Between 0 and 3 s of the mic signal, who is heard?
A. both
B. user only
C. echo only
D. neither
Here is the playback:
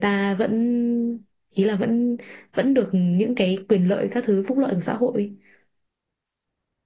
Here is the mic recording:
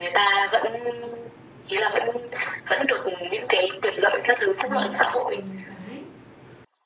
C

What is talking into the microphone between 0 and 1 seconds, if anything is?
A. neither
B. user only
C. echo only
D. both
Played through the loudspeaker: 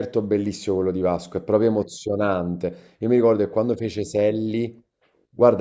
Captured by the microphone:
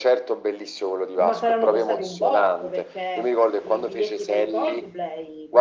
C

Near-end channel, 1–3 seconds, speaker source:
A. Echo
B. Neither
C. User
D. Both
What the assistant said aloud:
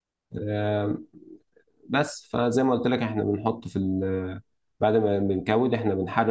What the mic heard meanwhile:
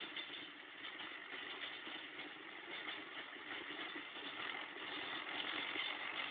B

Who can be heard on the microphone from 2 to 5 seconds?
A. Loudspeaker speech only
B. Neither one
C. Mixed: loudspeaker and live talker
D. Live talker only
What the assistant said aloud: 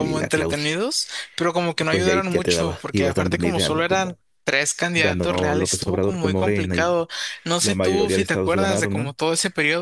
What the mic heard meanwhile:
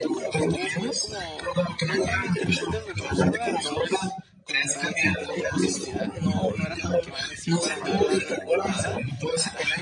C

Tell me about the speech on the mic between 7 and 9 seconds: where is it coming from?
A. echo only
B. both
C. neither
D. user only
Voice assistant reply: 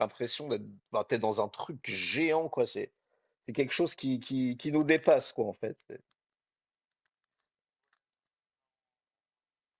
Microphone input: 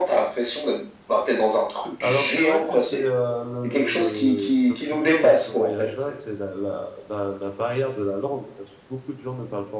D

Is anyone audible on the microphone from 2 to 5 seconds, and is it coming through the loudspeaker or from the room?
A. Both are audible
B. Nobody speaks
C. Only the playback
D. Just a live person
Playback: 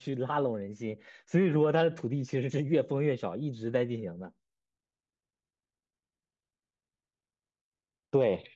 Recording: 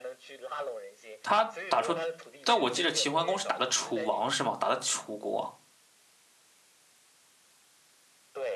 A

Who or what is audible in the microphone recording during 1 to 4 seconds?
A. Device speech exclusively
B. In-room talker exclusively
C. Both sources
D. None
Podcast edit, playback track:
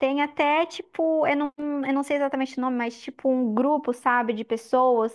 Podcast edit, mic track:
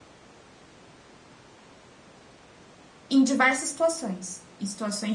B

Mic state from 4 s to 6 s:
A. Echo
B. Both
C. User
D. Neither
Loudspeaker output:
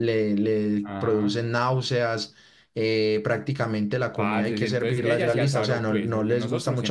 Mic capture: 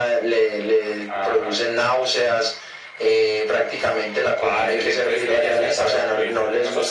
A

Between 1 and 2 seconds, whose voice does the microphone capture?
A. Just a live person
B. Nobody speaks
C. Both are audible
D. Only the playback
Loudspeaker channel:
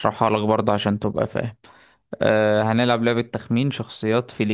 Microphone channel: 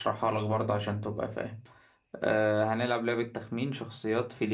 D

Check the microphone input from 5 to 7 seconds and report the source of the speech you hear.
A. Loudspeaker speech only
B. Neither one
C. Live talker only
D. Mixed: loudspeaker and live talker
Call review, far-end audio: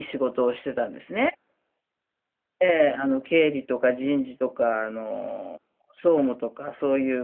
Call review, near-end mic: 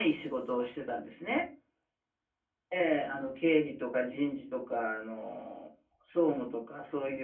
A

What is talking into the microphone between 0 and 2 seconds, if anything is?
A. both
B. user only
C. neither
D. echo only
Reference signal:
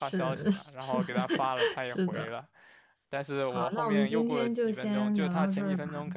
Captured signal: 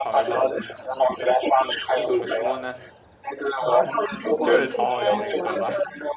A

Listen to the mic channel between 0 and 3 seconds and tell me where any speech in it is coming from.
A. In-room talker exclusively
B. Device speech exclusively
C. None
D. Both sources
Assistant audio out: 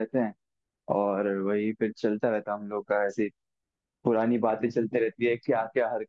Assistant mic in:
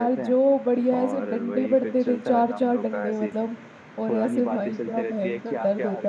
D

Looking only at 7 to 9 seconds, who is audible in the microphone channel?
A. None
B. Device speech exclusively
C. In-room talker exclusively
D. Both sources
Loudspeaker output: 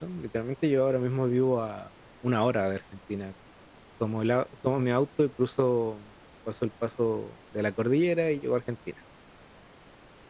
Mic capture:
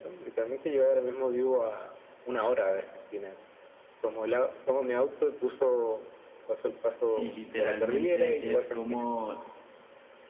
D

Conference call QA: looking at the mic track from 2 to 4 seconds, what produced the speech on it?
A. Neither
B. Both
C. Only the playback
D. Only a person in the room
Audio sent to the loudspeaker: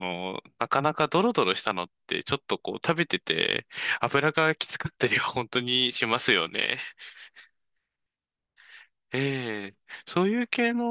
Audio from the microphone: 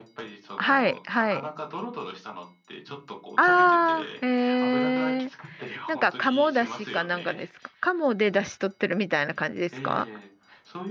B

